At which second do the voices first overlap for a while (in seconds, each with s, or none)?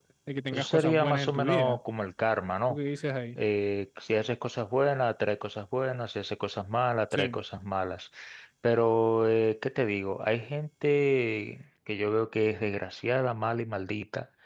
0.5 s